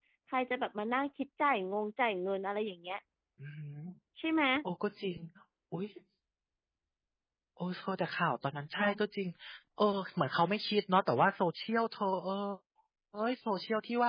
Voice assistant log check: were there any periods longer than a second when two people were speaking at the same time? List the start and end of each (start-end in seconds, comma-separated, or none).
none